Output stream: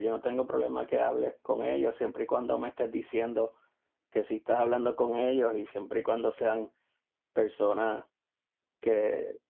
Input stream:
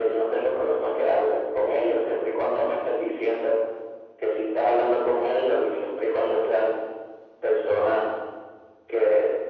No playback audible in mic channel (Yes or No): No